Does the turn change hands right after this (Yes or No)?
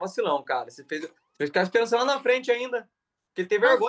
No